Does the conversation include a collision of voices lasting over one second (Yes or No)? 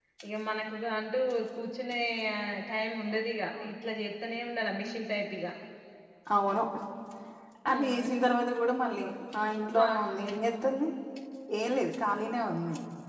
No